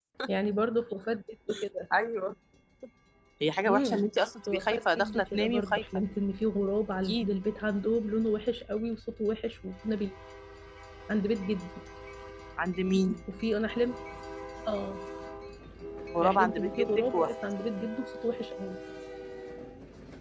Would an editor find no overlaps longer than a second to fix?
No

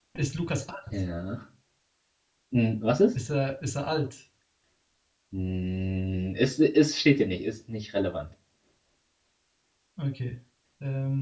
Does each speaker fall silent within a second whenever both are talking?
Yes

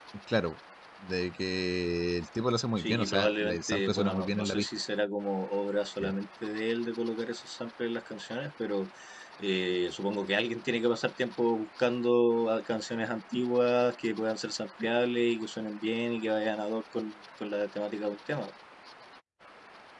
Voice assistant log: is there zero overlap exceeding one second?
No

